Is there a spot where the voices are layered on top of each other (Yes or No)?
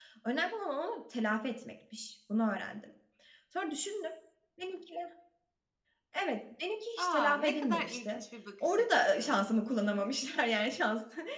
Yes